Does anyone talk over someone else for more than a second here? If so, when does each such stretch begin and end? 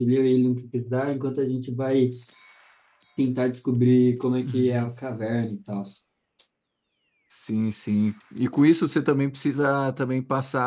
none

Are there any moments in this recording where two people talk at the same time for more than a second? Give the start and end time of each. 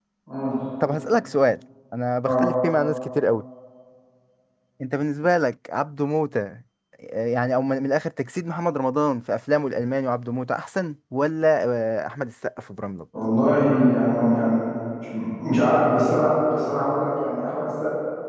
none

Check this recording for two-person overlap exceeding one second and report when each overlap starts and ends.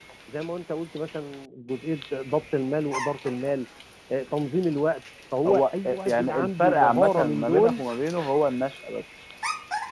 5.5-7.8

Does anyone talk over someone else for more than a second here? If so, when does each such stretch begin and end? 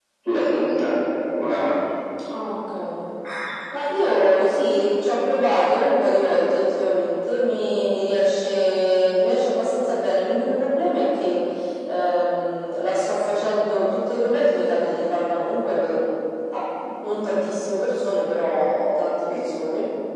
none

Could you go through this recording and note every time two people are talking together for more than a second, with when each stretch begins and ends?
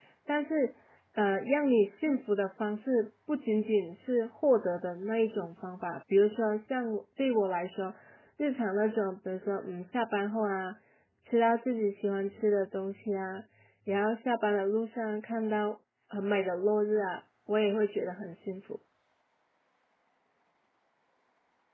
none

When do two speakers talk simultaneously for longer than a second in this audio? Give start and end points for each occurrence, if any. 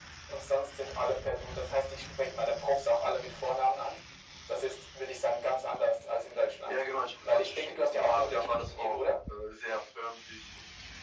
7.2-9.2

